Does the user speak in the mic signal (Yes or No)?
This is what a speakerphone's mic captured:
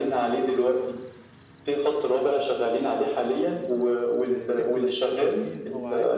Yes